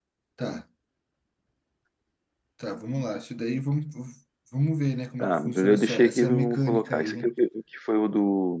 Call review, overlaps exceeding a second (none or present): present